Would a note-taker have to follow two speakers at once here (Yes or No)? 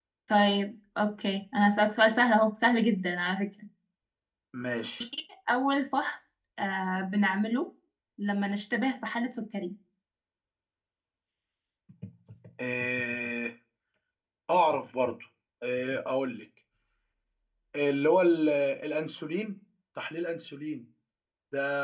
No